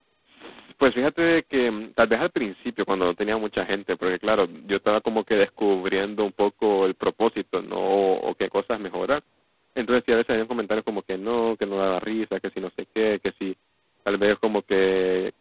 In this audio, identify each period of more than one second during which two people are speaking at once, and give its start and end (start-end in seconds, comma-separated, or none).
none